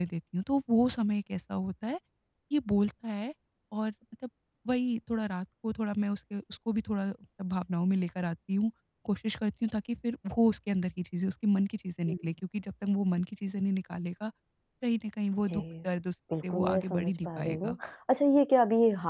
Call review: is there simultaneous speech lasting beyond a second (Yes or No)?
Yes